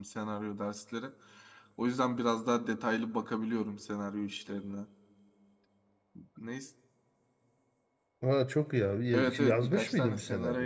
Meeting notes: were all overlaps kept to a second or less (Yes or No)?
No